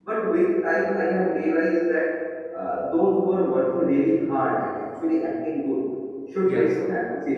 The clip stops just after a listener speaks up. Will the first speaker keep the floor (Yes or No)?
Yes